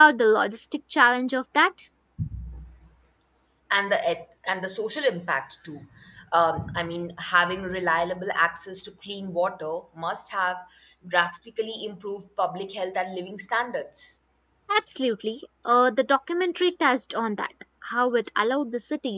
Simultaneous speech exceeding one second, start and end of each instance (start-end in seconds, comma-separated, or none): none